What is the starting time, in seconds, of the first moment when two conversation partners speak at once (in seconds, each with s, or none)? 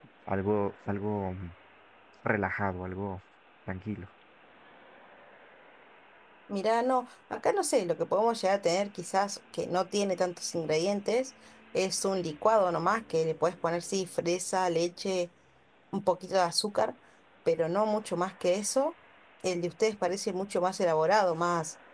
none